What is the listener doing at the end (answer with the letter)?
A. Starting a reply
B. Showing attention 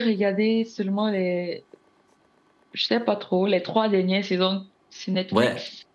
A